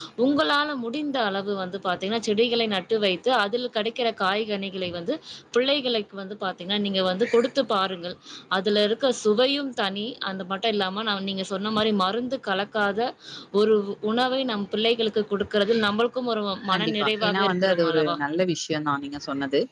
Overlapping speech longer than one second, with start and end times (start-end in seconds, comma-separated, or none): 16.7-18.2